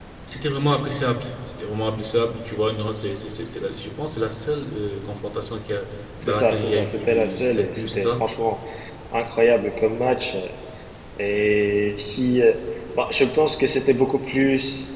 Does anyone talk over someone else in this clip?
Yes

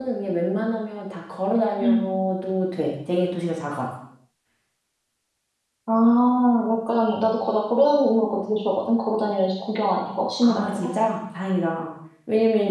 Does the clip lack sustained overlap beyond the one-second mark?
Yes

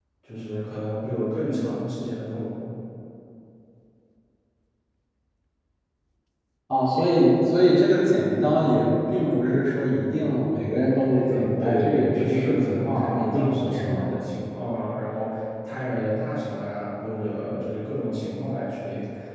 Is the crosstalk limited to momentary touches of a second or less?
No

